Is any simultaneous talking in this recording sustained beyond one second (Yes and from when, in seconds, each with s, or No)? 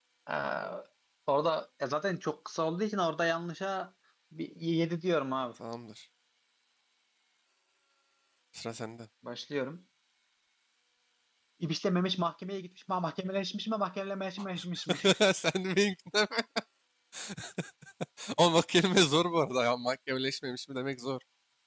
No